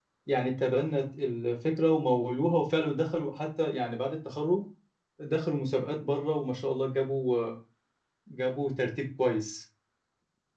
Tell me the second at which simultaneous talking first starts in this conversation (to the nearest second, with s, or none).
none